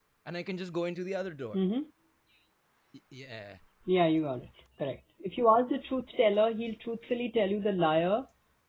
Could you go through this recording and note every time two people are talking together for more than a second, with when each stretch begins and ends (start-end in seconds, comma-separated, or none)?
none